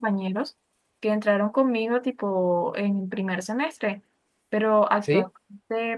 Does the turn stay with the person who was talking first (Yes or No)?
Yes